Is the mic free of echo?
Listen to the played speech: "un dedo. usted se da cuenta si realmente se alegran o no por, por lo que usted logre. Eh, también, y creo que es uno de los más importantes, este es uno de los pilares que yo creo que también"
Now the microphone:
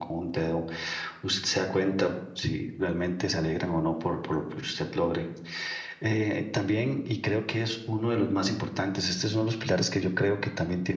No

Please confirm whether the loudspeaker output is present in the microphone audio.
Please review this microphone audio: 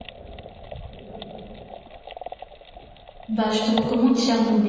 No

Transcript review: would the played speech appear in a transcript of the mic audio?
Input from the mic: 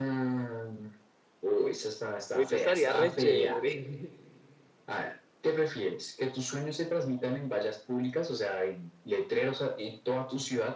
Yes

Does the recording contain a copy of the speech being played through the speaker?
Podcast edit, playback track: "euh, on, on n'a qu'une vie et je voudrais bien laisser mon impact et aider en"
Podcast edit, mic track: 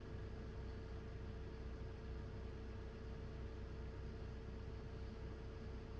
No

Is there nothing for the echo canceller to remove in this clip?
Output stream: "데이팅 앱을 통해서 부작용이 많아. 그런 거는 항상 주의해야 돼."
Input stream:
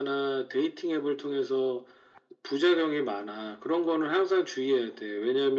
No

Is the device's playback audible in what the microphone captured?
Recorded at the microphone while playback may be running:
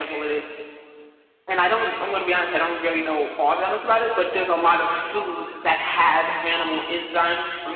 Yes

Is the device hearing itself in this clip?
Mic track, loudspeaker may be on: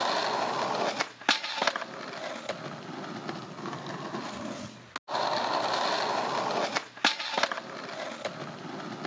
No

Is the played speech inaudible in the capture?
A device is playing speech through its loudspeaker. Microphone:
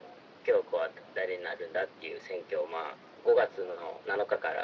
No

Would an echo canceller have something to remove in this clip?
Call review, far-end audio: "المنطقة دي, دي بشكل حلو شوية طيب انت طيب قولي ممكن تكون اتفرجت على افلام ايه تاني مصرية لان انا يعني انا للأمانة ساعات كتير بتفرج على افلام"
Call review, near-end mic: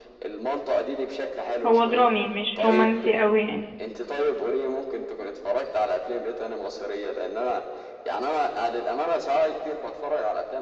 Yes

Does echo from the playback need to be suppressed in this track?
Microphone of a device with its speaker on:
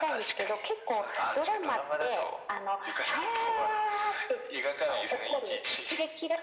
Yes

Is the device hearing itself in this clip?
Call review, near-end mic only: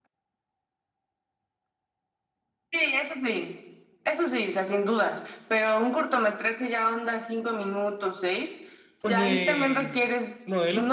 Yes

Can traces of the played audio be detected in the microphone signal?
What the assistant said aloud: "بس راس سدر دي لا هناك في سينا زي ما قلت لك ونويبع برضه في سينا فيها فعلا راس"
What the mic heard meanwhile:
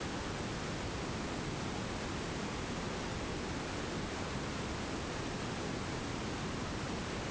No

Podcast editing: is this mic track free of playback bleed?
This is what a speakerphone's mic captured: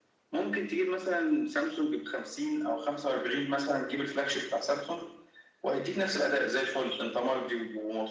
No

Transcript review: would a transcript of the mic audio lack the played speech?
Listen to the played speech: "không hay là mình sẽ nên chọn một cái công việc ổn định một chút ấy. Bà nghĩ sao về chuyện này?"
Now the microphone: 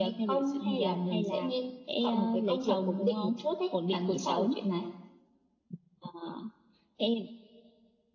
No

